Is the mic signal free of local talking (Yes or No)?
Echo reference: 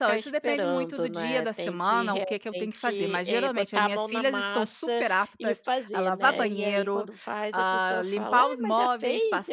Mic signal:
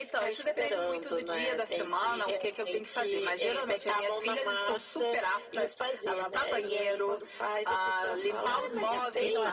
No